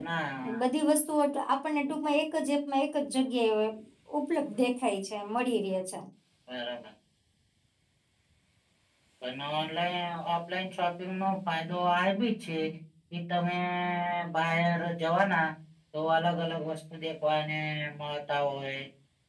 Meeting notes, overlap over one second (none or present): none